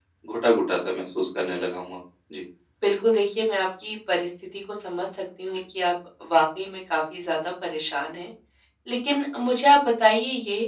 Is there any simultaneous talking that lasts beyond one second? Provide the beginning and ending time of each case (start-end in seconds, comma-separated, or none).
none